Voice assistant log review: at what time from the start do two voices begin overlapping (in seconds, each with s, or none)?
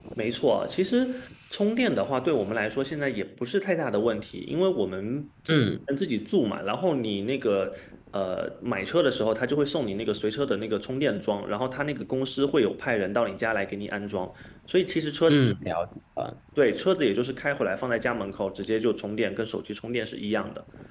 none